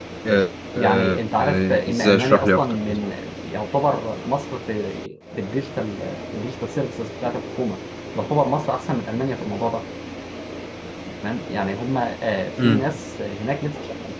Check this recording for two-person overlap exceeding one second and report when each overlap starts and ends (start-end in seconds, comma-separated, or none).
0.8-2.8